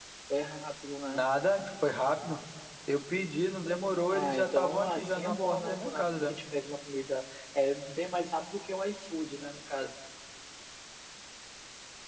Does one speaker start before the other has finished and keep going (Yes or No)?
Yes